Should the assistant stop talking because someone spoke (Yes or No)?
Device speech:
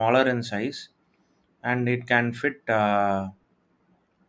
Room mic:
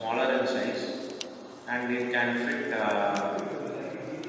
Yes